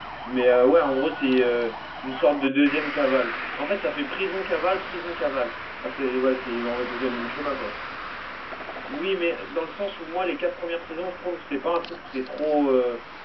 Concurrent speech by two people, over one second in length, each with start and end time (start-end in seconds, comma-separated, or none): none